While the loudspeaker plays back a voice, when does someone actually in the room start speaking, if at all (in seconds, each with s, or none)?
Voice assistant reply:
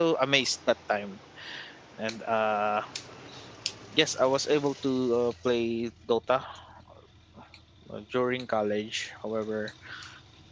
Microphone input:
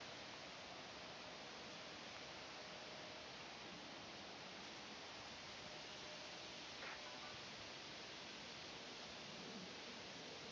none